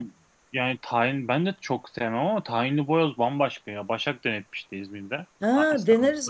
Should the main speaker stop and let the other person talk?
Yes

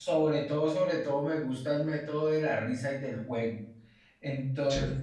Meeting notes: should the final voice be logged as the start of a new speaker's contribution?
No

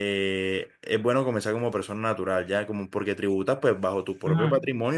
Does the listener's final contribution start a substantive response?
No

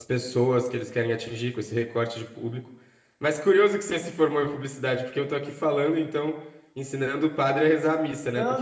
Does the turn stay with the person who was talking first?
No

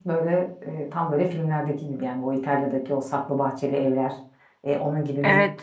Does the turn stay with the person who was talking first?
No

